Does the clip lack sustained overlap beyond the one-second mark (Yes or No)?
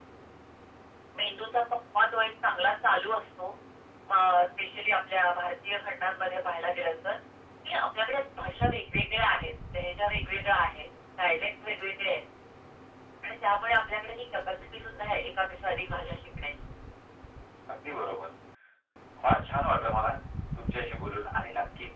Yes